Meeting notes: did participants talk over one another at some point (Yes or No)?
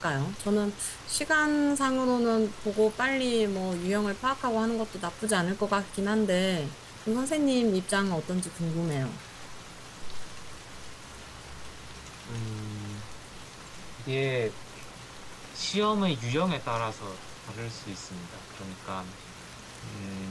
No